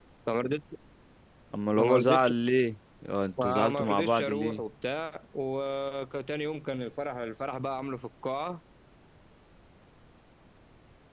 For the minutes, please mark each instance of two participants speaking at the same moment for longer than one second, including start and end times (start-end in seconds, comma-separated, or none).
3.4-4.6